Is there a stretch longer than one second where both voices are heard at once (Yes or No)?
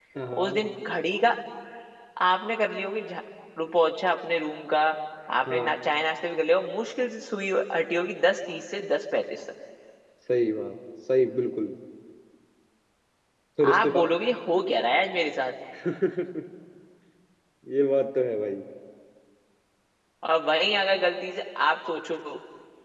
No